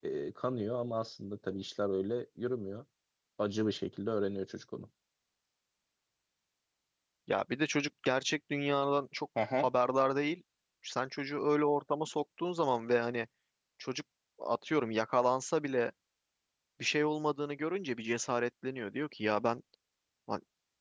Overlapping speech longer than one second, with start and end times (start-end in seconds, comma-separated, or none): none